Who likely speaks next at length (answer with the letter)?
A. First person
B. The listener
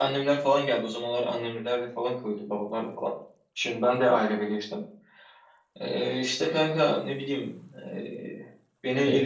A